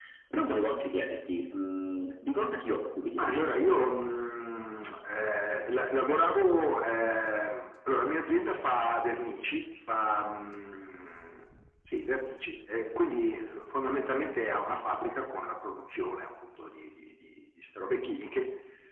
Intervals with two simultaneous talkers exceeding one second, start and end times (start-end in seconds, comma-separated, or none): none